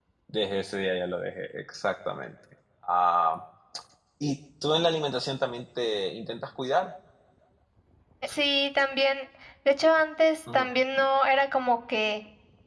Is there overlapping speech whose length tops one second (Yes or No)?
No